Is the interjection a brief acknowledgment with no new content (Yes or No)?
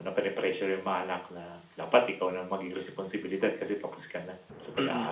No